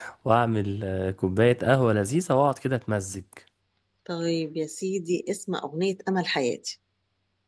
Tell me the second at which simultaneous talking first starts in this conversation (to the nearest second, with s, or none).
none